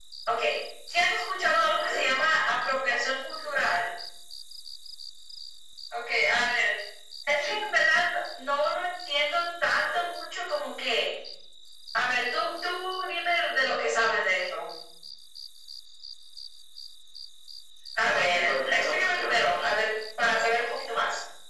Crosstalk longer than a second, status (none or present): present